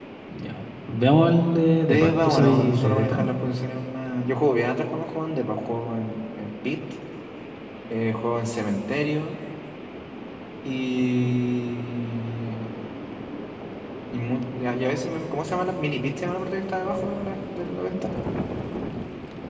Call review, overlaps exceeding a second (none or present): present